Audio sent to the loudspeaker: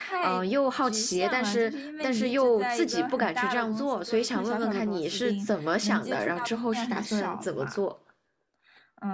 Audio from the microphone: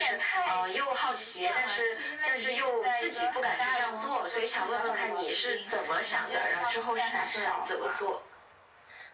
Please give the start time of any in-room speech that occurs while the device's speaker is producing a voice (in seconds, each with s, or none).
none